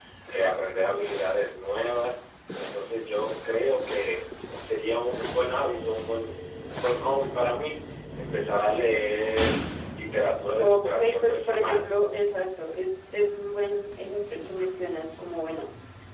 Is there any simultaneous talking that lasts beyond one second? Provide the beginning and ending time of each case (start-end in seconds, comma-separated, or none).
10.6-11.8